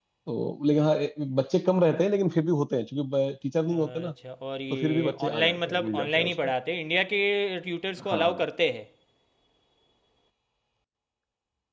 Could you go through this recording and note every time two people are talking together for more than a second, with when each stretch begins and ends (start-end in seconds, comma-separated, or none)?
4.7-6.5